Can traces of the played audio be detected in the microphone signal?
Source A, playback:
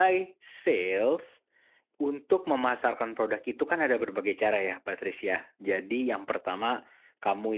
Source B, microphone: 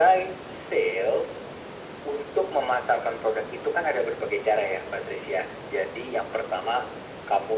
Yes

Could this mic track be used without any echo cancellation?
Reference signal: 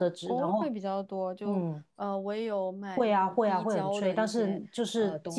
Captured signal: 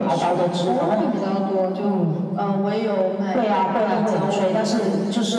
No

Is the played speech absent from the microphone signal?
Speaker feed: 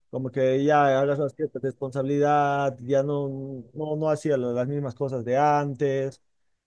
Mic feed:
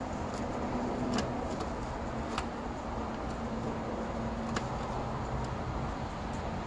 Yes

